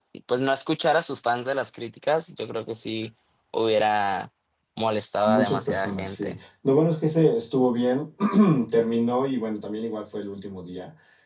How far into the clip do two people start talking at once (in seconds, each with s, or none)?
5.2 s